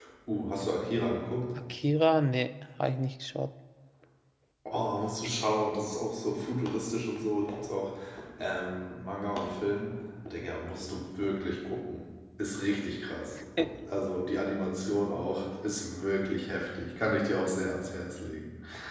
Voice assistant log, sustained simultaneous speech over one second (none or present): none